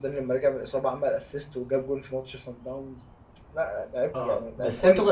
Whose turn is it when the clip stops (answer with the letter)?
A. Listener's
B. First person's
A